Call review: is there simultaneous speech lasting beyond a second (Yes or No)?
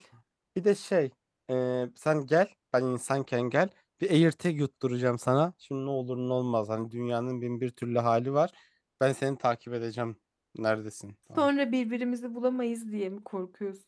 No